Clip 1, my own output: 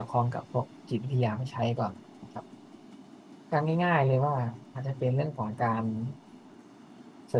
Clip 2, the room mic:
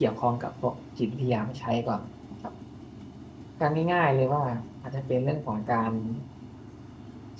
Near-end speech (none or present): none